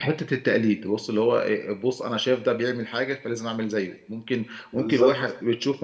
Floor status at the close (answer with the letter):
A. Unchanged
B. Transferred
A